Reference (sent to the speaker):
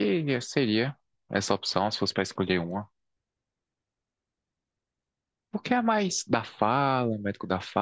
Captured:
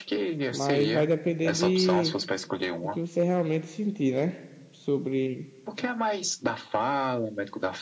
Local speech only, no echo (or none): Mas vai depender de do que você realmente sentir, né? Sobre,